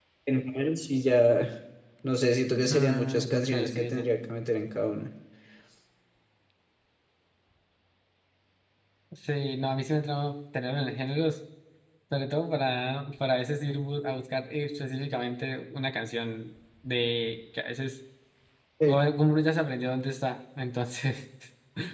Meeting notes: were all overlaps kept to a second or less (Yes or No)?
No